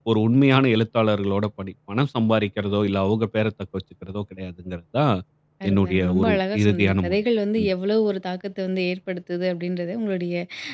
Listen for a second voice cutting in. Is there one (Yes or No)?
Yes